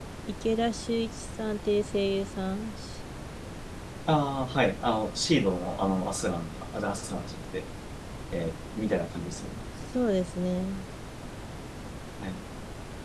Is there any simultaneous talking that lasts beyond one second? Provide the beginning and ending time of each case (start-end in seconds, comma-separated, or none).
none